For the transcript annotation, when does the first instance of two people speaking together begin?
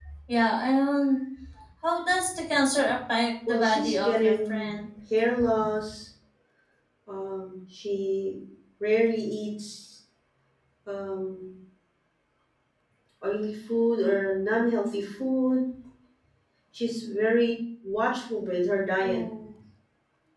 3 s

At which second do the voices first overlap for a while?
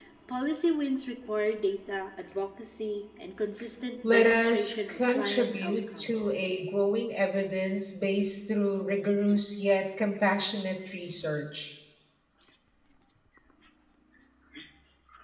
4 s

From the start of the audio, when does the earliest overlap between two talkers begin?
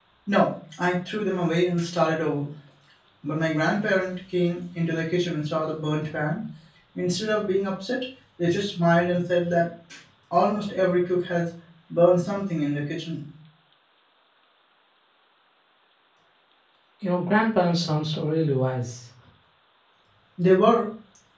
none

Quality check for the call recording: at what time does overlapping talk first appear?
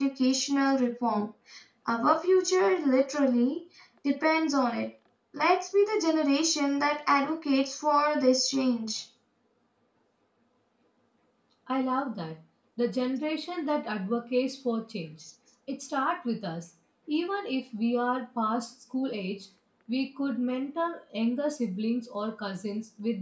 none

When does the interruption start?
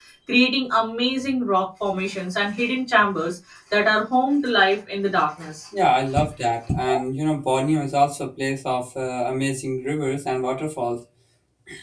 none

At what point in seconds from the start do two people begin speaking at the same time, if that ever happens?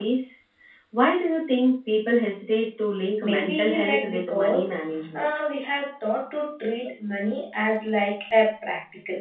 3 s

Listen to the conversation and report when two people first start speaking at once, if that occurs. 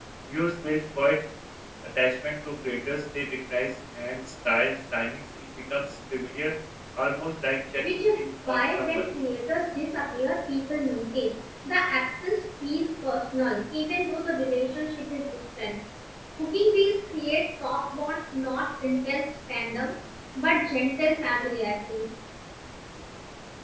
8 s

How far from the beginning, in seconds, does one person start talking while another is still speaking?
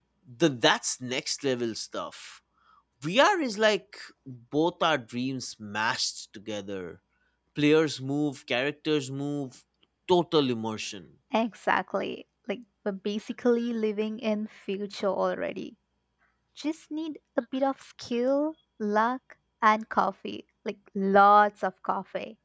none

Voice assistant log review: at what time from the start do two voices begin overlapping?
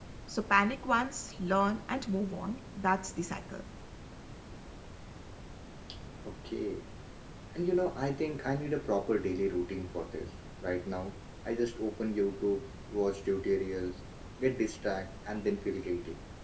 none

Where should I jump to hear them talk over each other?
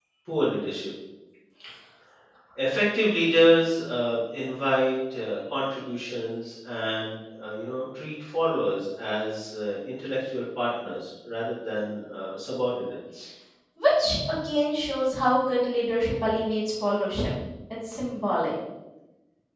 none

